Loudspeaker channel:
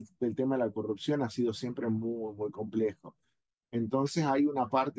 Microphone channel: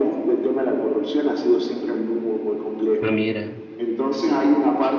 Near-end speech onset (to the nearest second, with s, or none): 3 s